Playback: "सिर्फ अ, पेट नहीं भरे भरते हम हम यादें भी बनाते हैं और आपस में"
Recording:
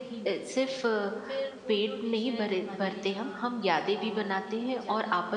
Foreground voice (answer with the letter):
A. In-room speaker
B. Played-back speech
B